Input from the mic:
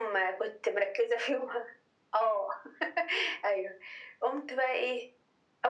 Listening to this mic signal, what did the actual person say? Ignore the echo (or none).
none